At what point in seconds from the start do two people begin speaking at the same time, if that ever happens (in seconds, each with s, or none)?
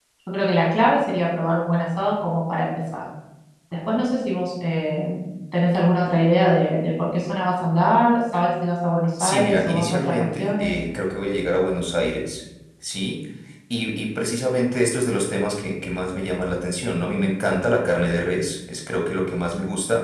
9.2 s